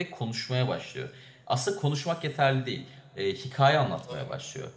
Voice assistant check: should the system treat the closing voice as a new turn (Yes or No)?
No